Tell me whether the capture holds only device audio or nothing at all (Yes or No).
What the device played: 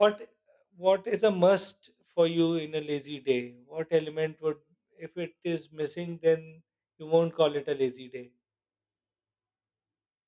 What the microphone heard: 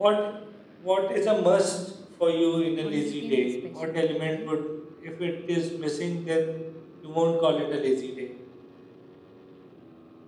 No